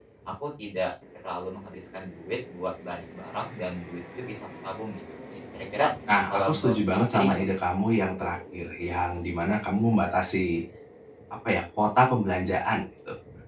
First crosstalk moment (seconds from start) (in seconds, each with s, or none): 6.3 s